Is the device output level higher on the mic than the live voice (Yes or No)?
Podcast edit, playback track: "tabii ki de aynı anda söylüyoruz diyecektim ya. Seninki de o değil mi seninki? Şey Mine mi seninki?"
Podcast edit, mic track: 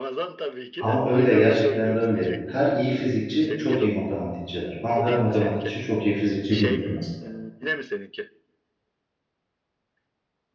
No